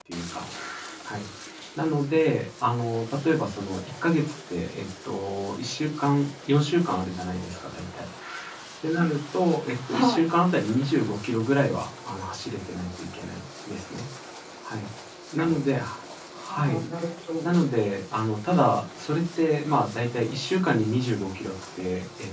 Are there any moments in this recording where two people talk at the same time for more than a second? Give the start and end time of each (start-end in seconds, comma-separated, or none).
none